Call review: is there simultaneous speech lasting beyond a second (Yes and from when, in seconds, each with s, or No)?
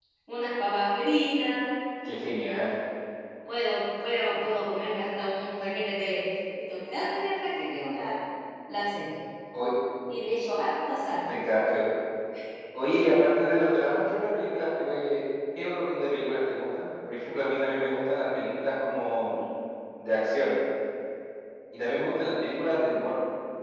No